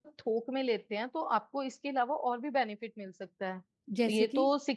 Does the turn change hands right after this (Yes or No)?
No